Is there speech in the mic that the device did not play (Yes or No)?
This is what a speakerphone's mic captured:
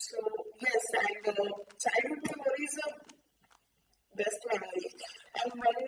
No